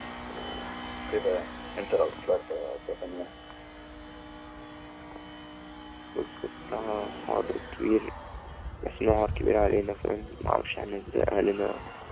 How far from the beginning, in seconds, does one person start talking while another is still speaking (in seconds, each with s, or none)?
none